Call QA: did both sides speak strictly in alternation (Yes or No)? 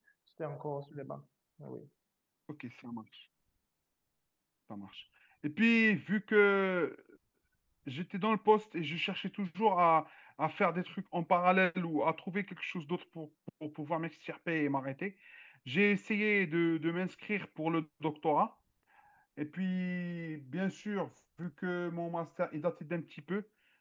Yes